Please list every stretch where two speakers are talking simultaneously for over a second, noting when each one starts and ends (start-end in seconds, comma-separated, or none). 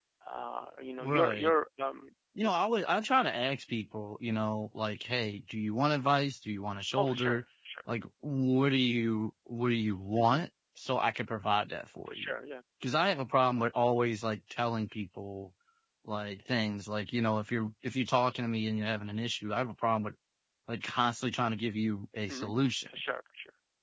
none